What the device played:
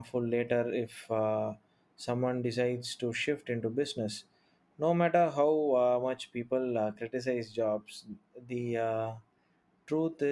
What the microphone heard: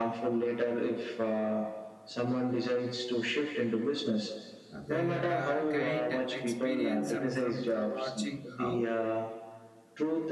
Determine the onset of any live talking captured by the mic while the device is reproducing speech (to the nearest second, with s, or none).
5 s